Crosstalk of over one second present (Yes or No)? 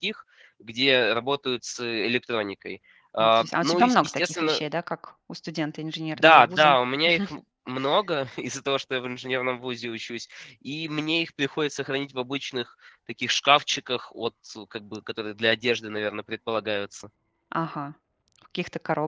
Yes